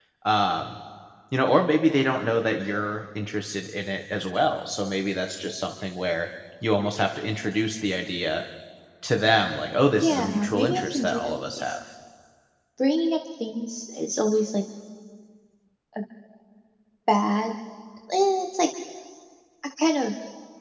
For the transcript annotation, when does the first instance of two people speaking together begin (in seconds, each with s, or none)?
10.0 s